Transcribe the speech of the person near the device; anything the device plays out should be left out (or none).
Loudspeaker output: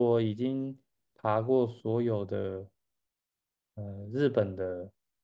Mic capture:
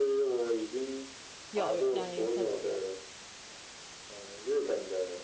有有，两个颜色都有。